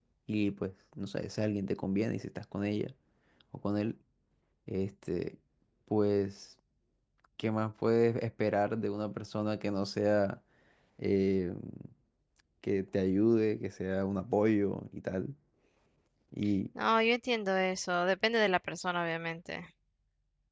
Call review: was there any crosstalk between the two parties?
No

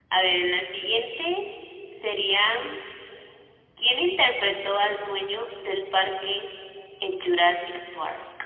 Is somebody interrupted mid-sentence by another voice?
No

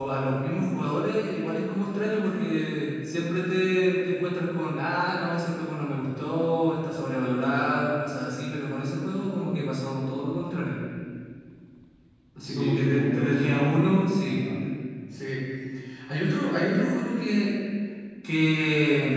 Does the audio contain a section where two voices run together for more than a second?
Yes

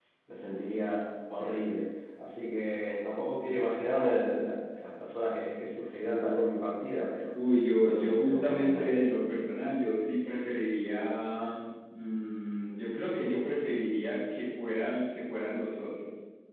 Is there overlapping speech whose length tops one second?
Yes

